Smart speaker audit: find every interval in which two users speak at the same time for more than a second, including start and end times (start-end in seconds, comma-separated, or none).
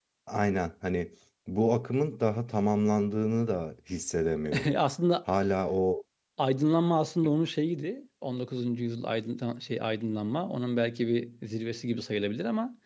none